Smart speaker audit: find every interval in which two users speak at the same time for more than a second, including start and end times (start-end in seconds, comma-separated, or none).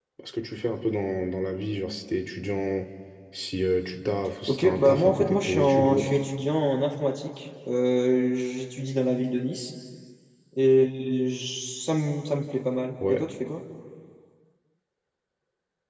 4.5-6.2